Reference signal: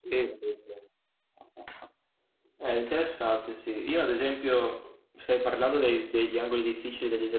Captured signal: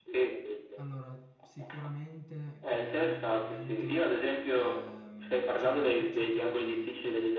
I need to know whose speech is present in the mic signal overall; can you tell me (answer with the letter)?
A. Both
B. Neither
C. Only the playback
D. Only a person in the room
A